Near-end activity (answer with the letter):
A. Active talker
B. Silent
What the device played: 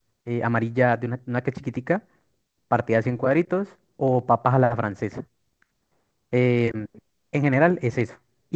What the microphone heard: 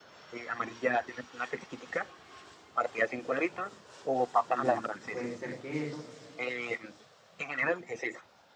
A